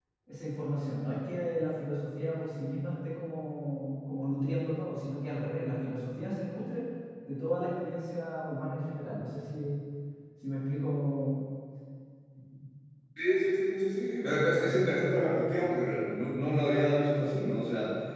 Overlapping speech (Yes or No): No